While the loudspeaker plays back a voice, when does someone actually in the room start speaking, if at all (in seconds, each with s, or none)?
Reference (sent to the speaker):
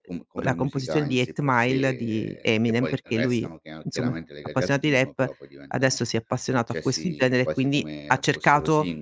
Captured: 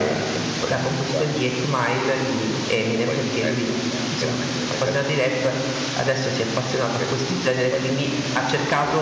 none